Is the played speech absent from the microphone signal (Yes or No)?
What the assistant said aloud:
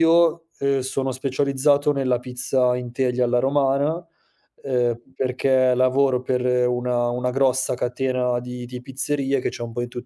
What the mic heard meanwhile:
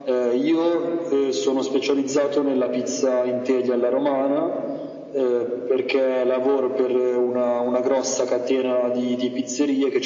No